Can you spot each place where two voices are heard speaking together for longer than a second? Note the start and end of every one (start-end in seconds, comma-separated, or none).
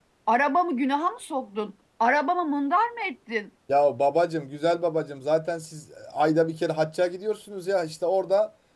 none